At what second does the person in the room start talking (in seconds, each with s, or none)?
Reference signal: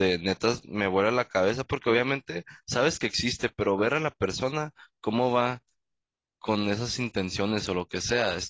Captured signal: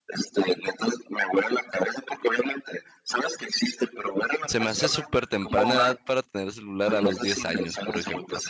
4.4 s